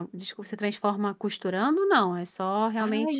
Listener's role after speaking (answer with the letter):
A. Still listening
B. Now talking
B